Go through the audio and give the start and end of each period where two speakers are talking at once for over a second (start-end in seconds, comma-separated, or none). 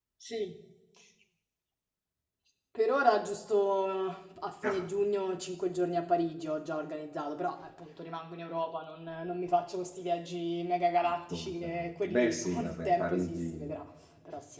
11.0-13.8